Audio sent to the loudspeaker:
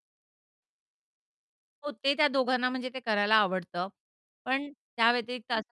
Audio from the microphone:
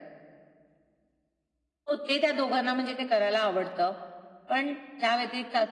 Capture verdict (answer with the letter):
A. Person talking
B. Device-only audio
B